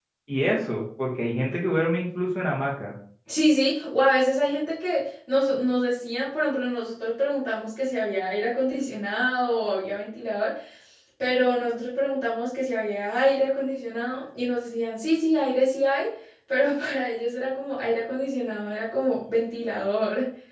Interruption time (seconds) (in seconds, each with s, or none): none